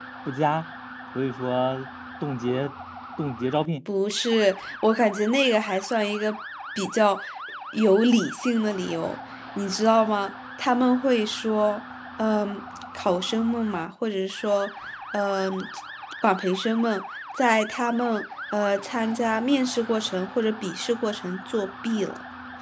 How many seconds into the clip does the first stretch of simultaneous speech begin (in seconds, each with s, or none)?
none